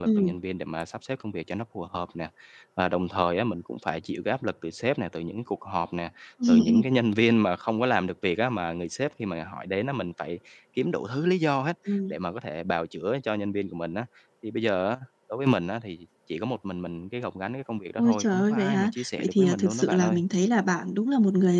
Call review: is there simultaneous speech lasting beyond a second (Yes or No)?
Yes